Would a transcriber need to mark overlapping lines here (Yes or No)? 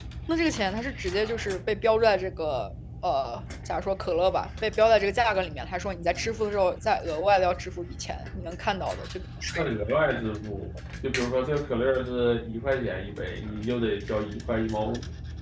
No